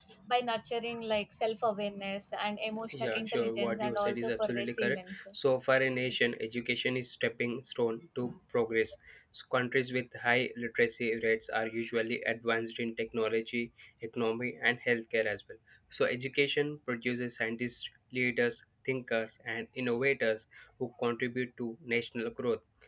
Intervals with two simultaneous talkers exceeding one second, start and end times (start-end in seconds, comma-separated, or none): 2.9-5.2